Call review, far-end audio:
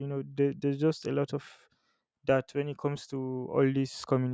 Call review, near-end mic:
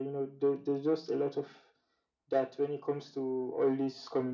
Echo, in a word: present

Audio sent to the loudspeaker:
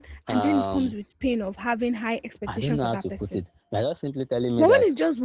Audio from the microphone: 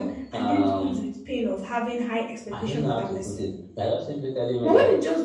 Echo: present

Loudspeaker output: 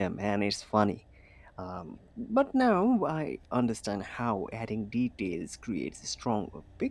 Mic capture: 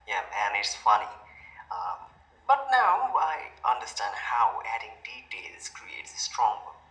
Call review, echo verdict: present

